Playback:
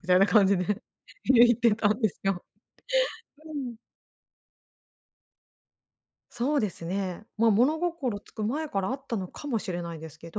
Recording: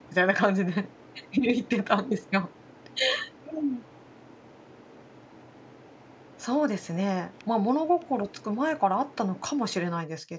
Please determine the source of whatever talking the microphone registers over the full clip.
echo only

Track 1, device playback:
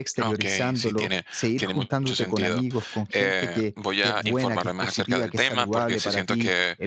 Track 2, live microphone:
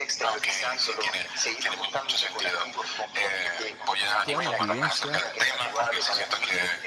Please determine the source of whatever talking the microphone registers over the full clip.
both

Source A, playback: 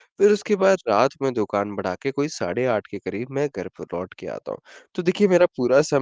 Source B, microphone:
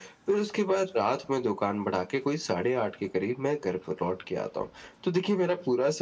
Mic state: echo only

